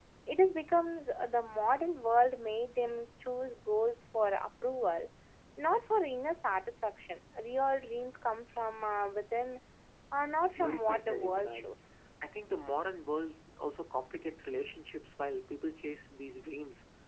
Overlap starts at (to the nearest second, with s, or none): 11 s